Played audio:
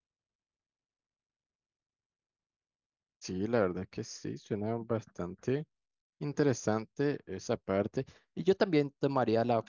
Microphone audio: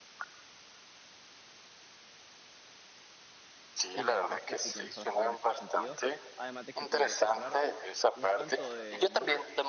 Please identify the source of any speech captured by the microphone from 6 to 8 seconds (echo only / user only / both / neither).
both